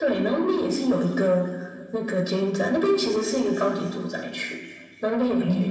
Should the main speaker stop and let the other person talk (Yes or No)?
No